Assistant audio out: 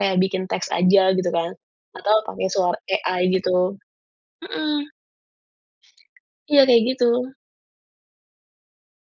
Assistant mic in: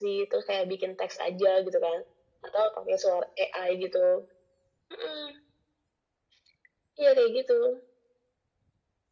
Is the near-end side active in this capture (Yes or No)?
No